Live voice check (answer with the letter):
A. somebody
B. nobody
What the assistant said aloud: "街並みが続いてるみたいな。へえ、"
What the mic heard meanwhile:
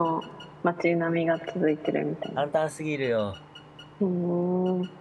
A